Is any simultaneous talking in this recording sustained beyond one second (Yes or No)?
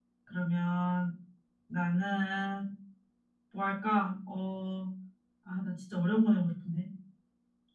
No